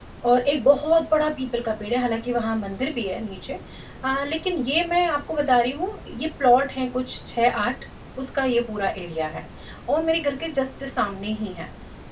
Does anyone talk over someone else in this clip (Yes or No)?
No